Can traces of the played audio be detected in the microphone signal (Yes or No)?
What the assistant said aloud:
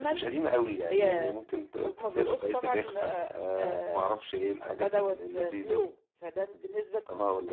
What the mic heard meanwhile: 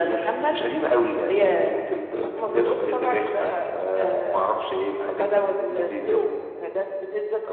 Yes